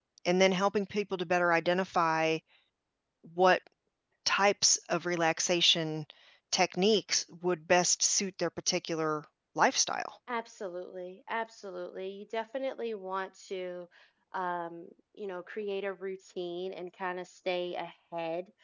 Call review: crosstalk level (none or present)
none